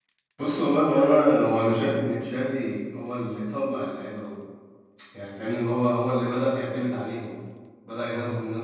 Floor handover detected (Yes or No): No